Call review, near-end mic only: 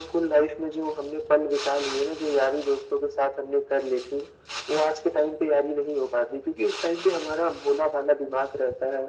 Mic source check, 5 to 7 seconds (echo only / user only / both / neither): echo only